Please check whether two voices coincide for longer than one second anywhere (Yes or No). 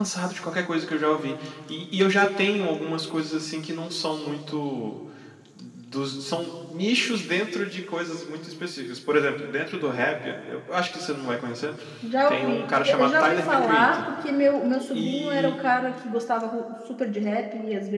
Yes